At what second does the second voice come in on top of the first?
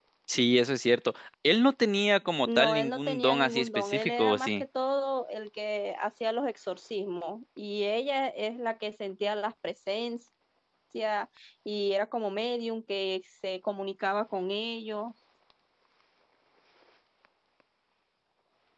2.5 s

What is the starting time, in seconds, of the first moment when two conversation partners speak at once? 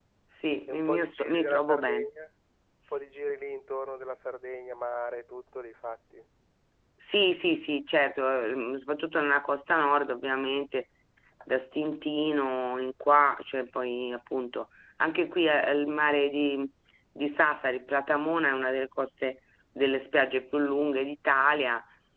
0.7 s

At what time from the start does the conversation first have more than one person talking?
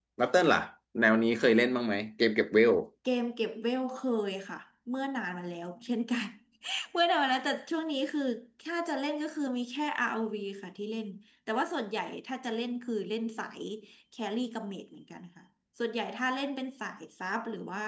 none

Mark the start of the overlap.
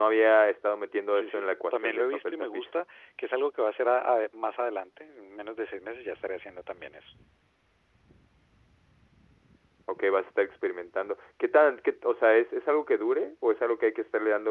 1.1 s

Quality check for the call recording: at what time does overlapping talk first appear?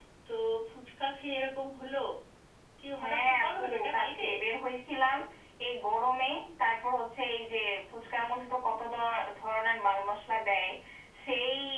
3.0 s

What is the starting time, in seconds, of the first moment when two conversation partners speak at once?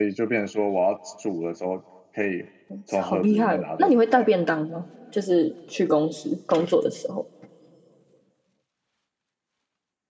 3.0 s

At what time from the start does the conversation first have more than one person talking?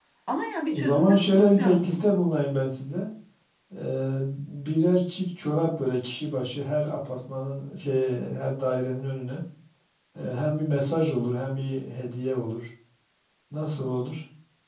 0.7 s

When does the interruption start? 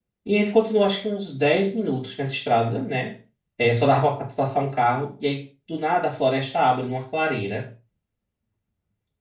none

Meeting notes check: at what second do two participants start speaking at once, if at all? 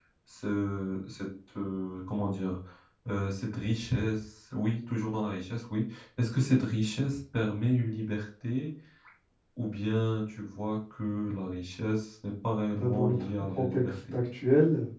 12.7 s

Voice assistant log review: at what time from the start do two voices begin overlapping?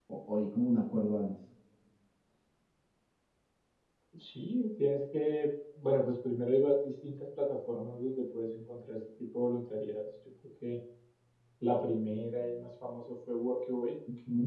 none

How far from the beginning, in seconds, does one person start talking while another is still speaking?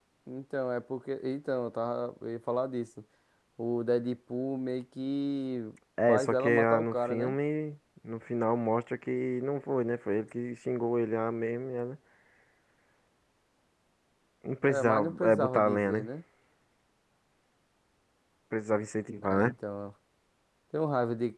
6.1 s

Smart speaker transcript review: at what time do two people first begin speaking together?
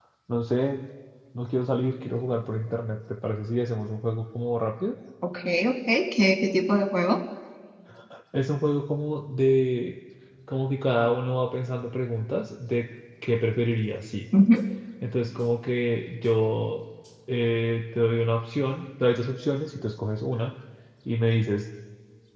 none

